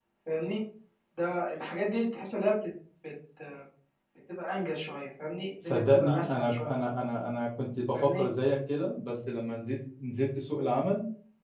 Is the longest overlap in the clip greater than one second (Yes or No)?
Yes